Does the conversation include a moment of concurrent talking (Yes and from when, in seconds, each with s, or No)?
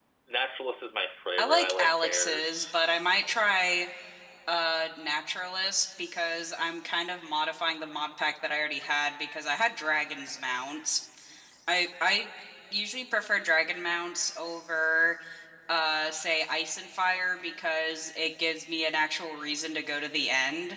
Yes, from 1.4 s